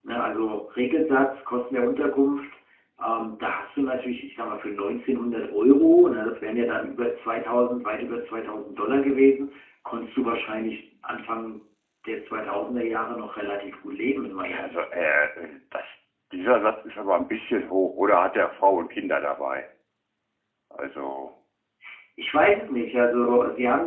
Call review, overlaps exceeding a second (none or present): none